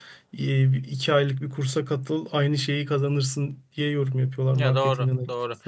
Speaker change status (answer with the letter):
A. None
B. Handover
B